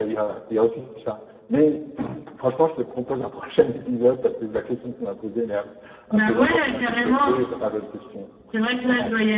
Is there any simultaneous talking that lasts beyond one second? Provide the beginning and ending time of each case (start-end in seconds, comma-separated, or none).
6.1-7.5